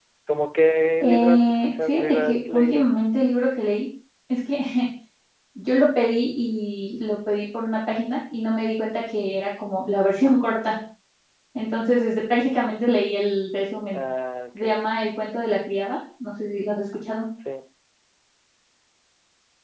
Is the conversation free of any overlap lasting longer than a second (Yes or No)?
No